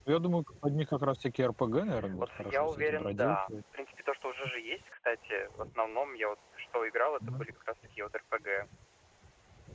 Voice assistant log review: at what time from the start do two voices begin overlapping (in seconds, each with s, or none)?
2.0 s